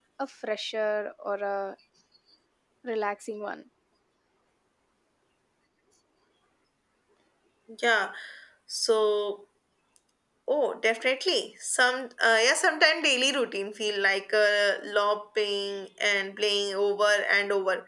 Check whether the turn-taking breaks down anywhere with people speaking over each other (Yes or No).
No